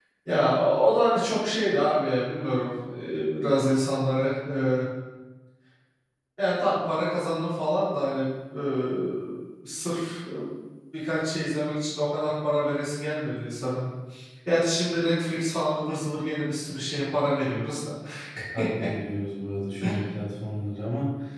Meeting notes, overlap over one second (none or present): none